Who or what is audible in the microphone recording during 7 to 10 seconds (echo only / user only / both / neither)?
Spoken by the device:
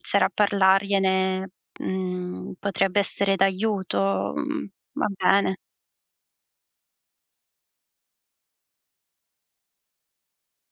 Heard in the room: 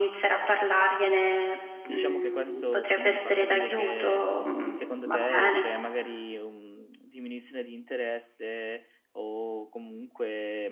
user only